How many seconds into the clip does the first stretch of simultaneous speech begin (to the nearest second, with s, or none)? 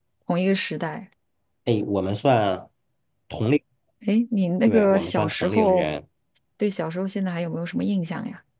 5 s